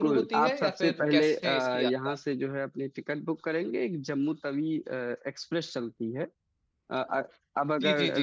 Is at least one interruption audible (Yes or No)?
Yes